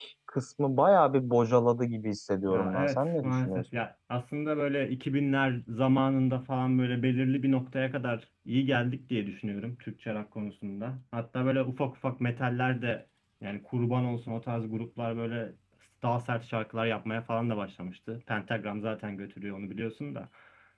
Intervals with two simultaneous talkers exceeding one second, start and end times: 2.5-3.8

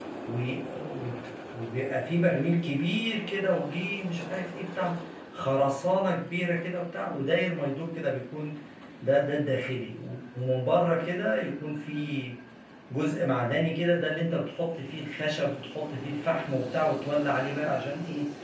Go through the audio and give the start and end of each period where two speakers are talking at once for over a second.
none

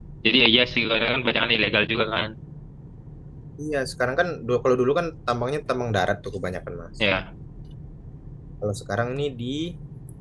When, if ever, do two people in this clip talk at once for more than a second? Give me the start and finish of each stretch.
none

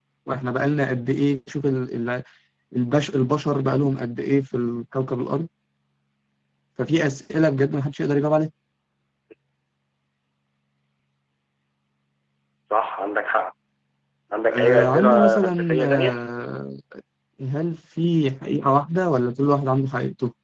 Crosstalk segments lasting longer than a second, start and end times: 14.5-16.2

